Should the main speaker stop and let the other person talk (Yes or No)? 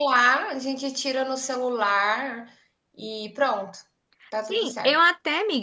Yes